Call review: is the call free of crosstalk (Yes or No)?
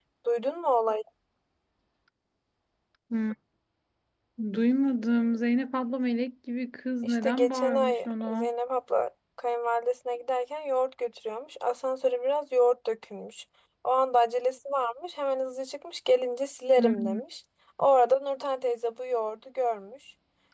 No